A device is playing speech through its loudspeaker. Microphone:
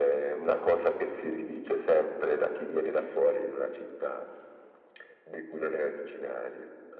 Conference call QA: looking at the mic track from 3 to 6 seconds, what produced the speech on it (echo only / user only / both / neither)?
echo only